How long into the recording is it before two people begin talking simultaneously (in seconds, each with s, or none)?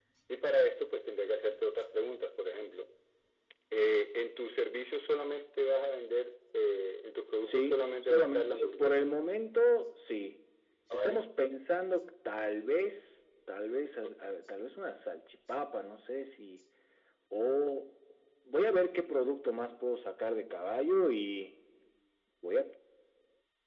7.4 s